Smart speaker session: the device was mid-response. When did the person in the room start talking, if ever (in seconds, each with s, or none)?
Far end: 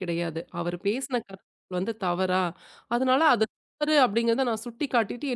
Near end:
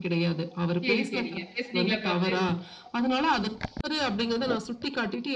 0.8 s